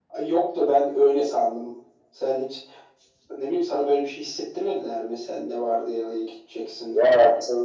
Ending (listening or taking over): taking over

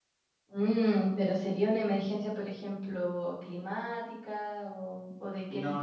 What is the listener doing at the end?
taking over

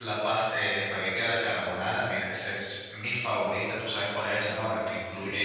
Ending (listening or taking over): listening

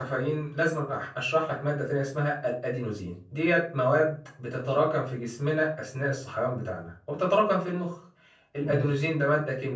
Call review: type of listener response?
listening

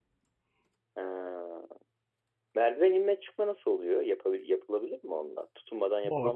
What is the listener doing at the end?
taking over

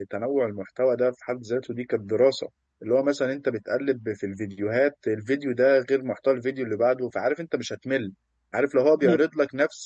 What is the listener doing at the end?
listening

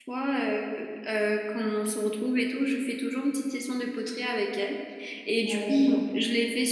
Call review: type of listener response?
listening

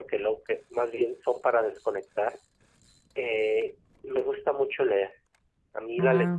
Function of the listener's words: listening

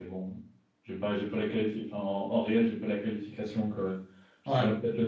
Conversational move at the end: listening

